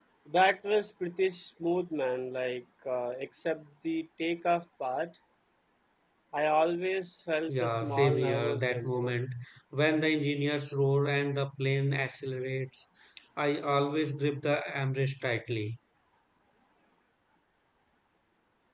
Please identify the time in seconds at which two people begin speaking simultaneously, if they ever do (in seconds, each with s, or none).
7.5 s